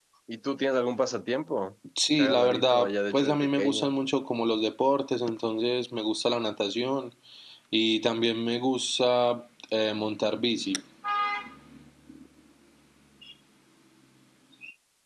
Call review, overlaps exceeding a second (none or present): present